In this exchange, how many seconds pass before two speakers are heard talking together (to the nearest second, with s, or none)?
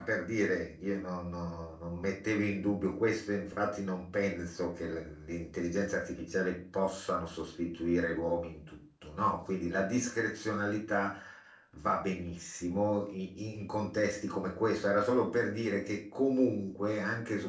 none